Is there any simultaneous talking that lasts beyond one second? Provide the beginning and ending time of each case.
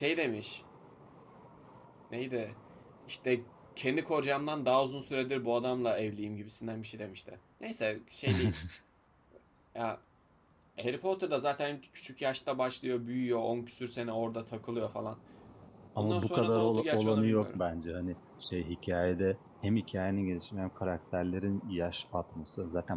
16.0-17.6

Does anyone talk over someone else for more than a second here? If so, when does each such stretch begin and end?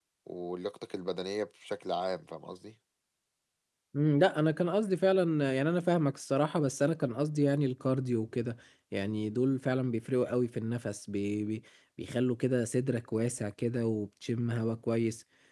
none

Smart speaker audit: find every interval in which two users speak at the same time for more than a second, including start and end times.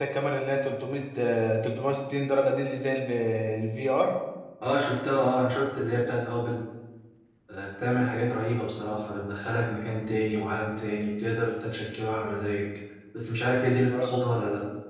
none

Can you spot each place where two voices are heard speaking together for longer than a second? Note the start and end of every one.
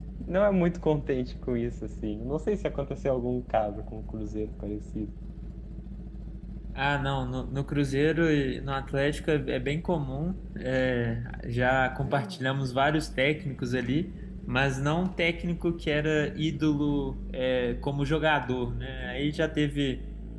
none

